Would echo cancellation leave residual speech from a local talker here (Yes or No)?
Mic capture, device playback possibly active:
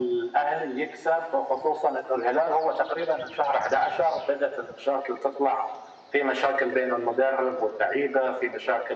No